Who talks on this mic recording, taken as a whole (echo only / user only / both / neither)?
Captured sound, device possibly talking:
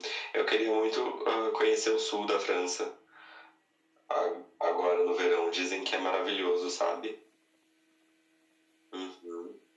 echo only